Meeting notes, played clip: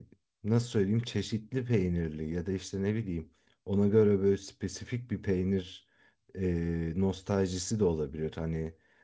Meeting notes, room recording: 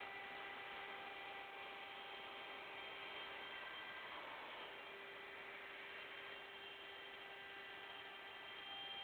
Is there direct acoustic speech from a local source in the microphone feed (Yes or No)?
No